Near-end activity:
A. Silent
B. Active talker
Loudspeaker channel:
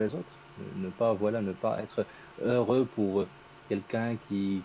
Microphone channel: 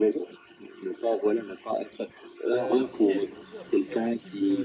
B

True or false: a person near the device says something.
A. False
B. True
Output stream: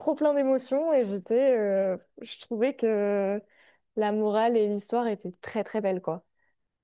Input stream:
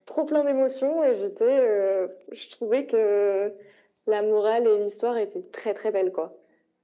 A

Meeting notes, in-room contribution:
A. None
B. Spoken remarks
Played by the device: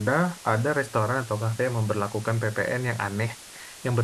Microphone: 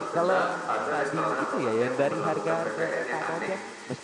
B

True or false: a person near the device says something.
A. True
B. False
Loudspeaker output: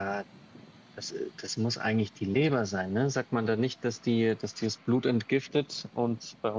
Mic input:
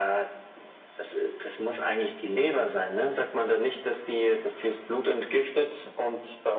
B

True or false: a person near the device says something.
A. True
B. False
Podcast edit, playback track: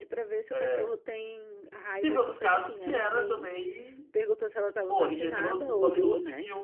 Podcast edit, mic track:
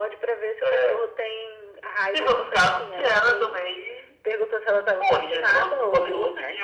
B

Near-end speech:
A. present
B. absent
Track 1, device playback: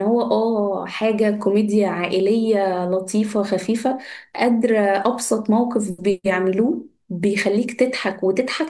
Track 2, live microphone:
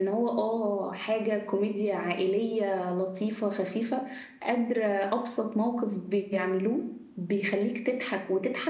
B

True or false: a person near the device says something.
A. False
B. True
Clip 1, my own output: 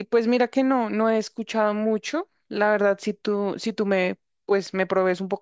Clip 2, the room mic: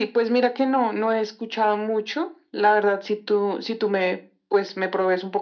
A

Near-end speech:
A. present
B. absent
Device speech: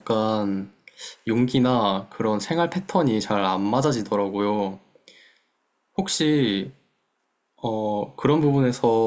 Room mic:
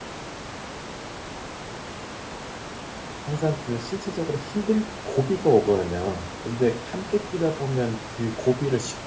A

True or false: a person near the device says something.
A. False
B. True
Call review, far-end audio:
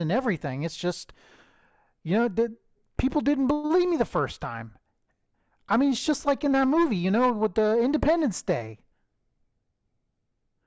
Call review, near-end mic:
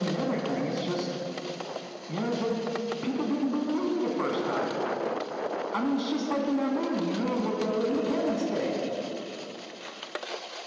A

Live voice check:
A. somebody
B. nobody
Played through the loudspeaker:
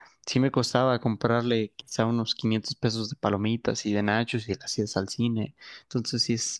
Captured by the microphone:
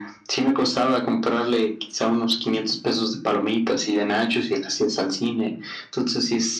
B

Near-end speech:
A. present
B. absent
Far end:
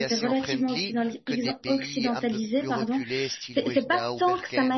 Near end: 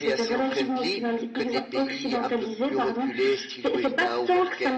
B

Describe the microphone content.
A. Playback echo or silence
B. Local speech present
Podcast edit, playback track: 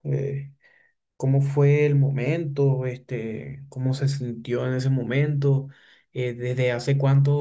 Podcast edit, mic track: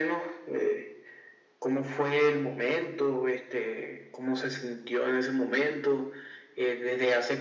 A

